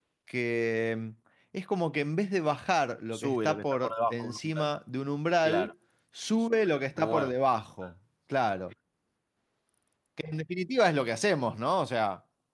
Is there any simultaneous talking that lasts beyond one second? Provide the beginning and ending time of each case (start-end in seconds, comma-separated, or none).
3.1-4.7